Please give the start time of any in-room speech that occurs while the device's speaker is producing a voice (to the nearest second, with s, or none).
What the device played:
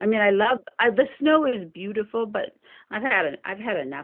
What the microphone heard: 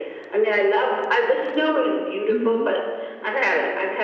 2 s